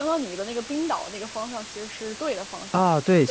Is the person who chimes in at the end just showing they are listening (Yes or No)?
No